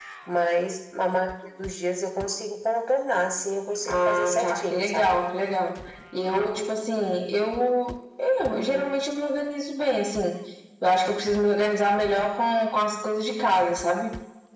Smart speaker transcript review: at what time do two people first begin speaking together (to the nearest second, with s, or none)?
4 s